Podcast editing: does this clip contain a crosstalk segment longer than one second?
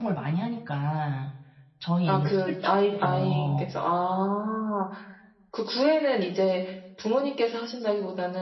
Yes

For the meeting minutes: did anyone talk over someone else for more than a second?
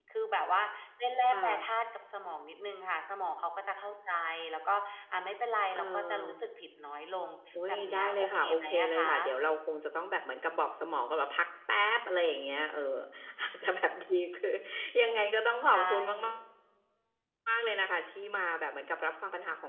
Yes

